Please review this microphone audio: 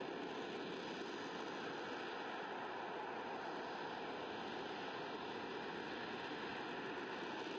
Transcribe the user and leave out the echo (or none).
none